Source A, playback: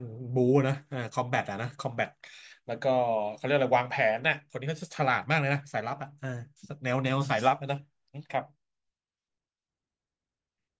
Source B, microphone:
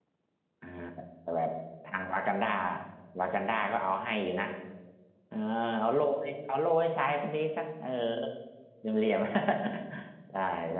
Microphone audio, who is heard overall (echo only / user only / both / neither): user only